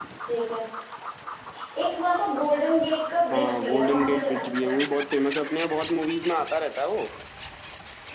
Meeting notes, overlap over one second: present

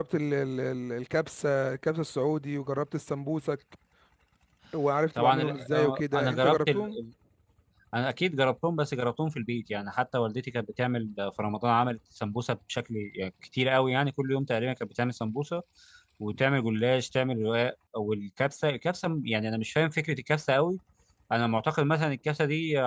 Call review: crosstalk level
present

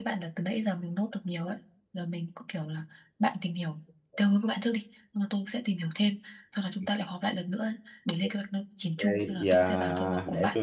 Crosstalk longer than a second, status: present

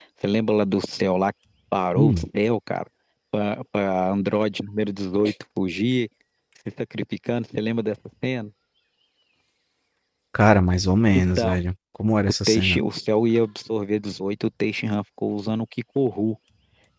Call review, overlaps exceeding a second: none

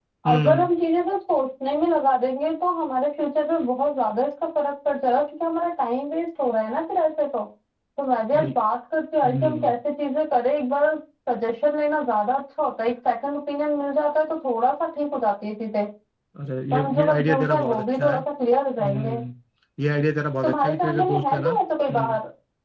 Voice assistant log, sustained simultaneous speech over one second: present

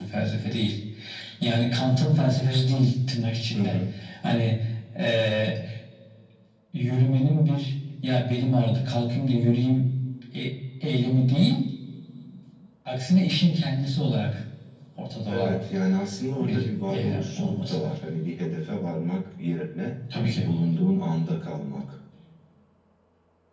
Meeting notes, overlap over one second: present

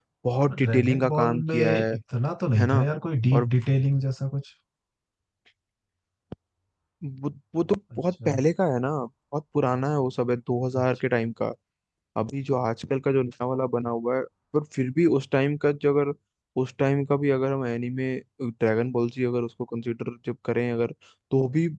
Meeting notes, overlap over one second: present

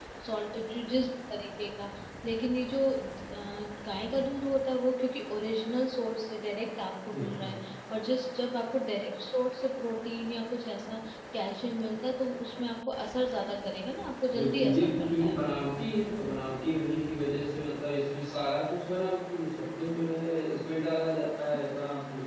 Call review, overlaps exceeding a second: present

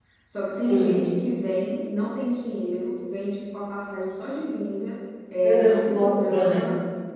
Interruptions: present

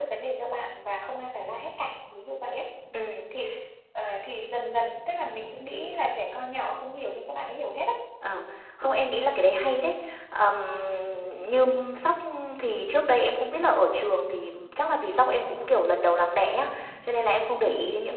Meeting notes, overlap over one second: none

